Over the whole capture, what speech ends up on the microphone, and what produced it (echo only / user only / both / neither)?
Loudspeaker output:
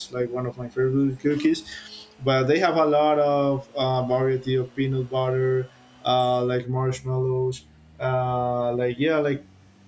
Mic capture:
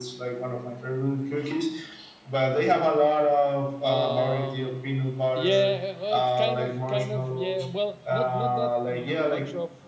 both